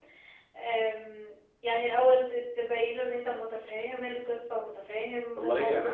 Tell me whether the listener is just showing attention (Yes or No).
No